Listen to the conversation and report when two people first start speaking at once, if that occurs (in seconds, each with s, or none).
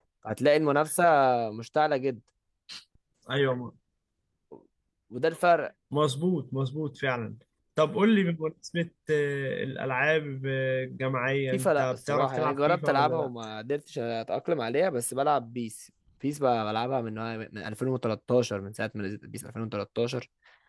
11.5 s